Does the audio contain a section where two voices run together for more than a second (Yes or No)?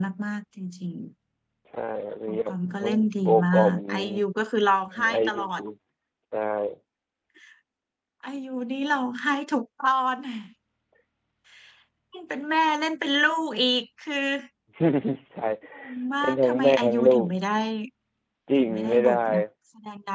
Yes